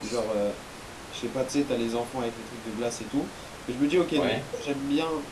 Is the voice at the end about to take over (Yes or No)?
No